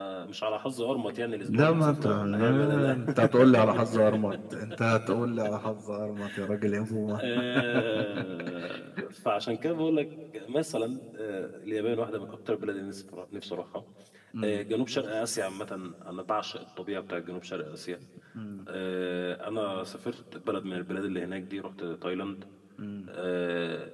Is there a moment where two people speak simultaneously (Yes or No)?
Yes